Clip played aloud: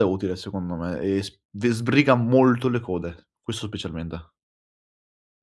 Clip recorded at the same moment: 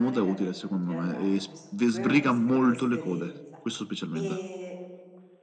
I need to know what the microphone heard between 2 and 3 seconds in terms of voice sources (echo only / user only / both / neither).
both